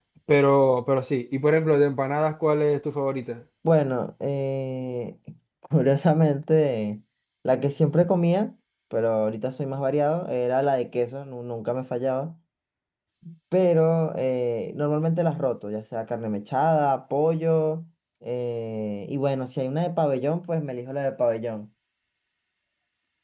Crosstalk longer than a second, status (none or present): none